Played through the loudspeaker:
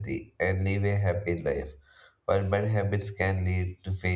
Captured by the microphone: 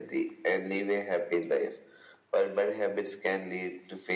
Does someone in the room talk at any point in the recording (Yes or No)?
No